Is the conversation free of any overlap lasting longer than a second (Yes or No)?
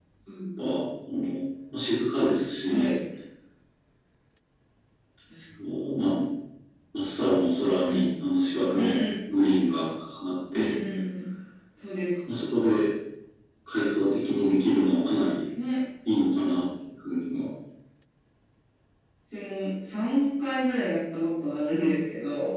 Yes